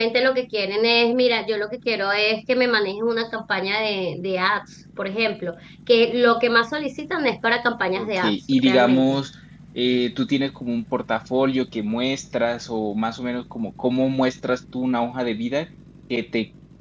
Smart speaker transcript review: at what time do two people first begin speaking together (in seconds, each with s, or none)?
8.0 s